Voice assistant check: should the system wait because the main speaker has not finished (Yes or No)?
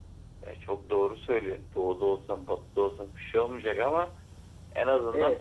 Yes